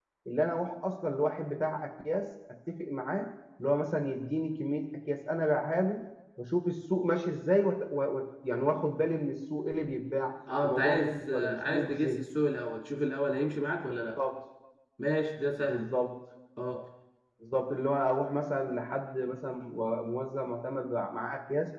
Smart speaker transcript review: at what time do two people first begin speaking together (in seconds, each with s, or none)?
10.6 s